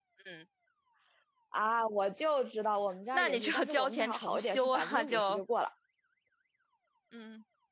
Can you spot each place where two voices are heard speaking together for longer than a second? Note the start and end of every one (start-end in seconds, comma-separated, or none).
3.1-5.4